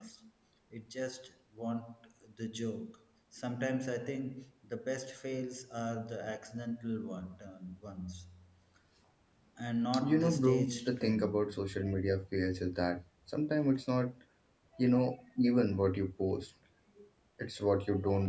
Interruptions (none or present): present